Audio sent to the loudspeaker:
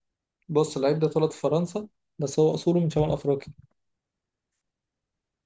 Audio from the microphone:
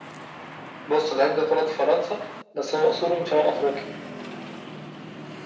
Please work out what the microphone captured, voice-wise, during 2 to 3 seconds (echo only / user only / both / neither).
echo only